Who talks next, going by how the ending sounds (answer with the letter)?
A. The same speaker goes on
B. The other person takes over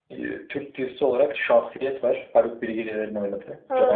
B